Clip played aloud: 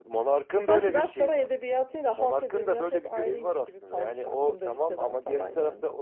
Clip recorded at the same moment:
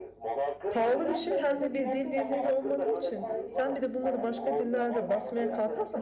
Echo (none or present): present